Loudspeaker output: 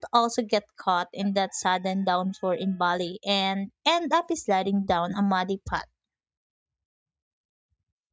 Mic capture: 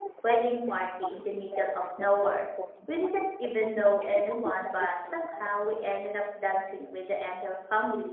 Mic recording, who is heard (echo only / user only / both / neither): both